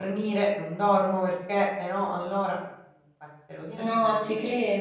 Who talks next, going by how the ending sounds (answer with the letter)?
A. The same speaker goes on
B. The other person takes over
B